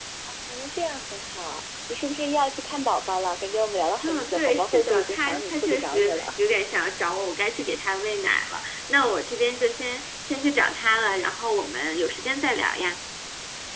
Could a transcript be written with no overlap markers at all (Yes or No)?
No